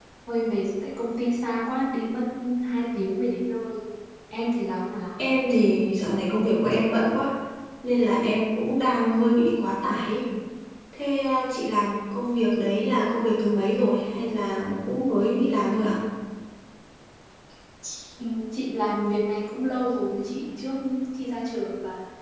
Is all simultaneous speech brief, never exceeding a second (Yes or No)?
Yes